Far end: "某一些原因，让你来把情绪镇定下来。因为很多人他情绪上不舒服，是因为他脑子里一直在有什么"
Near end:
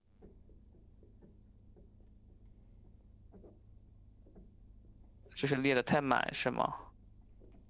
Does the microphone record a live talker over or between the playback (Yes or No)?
Yes